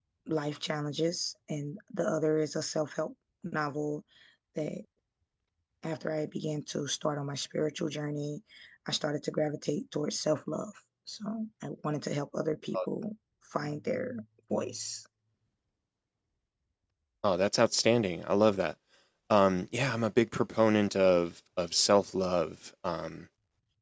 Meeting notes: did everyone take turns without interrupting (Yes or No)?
Yes